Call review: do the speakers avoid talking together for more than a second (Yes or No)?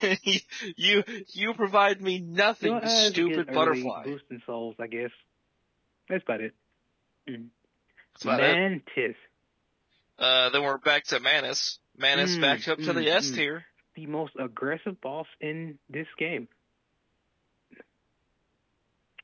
No